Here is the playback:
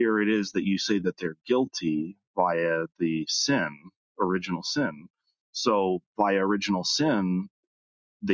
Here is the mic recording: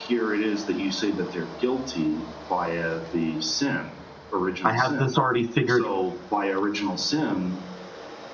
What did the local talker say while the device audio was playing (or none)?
I have this already figured